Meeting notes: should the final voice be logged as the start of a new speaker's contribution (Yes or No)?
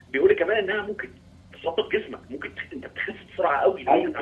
Yes